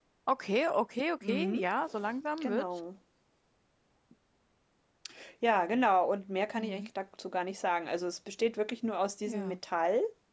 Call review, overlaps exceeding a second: none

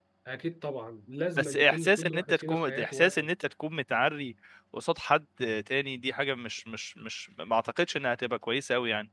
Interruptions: present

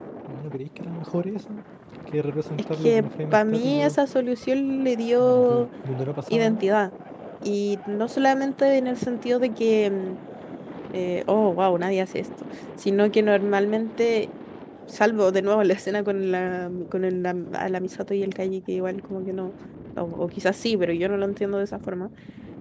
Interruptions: present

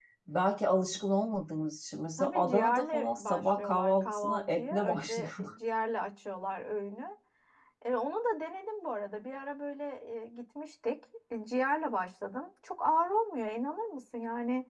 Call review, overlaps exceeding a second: present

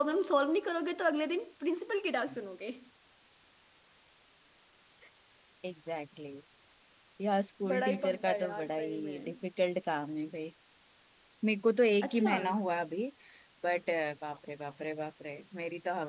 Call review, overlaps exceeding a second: present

